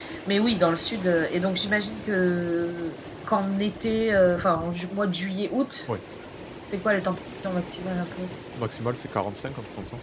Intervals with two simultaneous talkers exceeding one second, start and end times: none

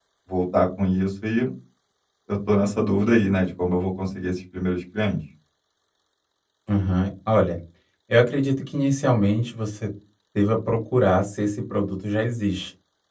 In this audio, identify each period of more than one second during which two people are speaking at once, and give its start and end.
none

